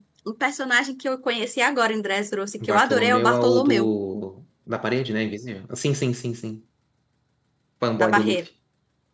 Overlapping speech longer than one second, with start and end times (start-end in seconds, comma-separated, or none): 2.6-3.9